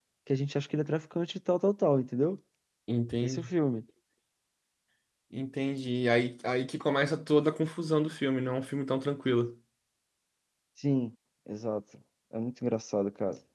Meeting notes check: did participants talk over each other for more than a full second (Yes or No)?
No